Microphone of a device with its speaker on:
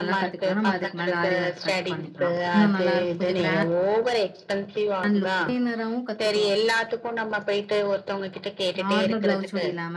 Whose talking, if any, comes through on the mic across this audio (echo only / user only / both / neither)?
both